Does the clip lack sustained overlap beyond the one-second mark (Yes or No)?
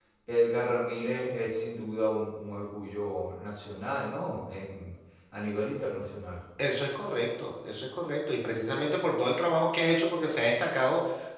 Yes